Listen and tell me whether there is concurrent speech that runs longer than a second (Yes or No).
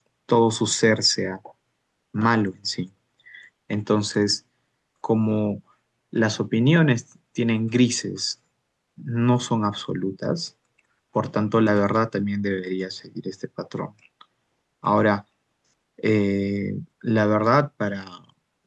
No